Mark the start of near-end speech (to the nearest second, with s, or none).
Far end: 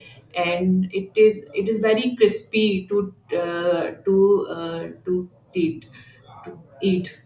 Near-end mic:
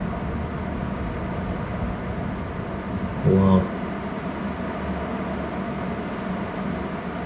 3 s